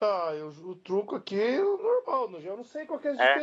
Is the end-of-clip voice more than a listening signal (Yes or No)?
No